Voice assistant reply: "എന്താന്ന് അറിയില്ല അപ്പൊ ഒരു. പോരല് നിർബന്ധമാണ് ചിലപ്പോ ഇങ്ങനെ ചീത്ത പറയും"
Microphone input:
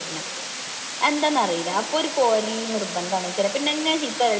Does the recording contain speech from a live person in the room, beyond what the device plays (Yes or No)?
No